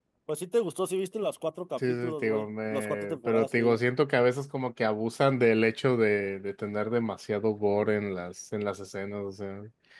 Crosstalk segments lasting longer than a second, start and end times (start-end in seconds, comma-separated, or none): 1.9-3.8